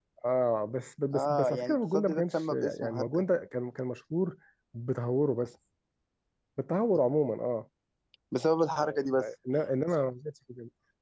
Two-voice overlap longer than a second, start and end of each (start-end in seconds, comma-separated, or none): 1.1-3.2